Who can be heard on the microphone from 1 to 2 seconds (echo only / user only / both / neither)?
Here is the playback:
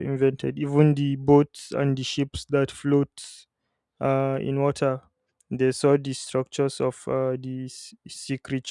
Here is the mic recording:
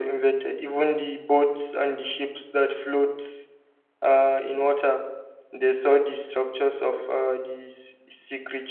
echo only